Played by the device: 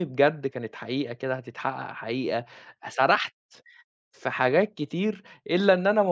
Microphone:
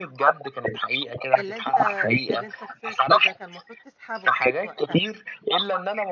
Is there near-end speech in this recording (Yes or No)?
Yes